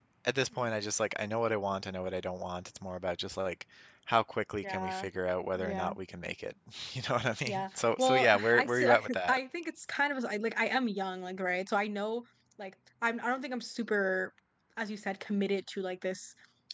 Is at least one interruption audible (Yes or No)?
Yes